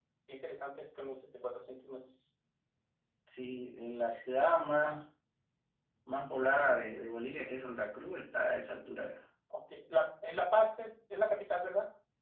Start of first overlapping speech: none

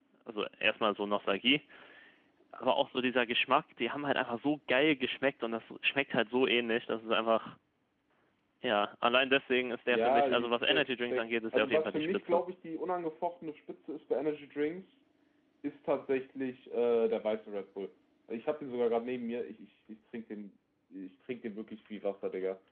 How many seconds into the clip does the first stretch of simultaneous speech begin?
9.9 s

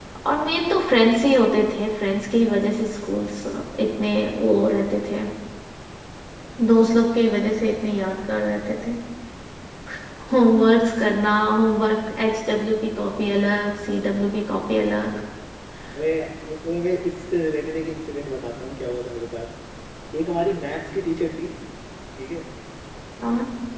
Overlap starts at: none

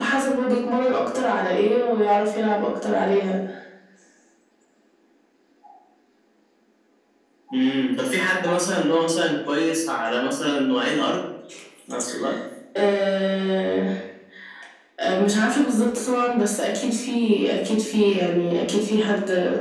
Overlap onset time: none

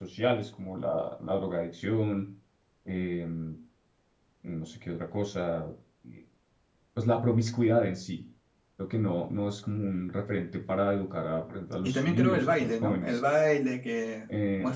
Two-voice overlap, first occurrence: 11.8 s

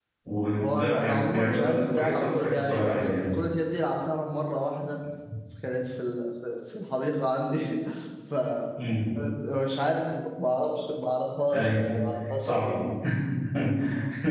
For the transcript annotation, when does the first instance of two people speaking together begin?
0.6 s

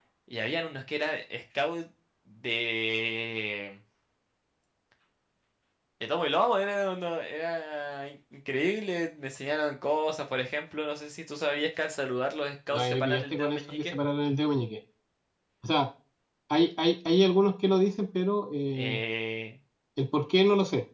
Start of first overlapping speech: 12.7 s

